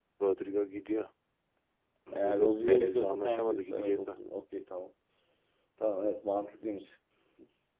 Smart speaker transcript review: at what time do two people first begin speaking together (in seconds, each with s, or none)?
2.1 s